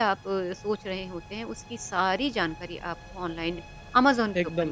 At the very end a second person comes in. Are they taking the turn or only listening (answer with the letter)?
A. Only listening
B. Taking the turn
B